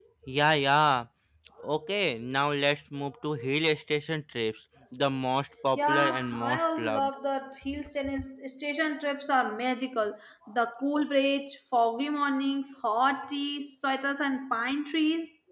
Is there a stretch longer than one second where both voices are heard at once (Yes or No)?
Yes